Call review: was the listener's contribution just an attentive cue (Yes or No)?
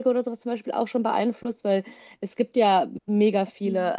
Yes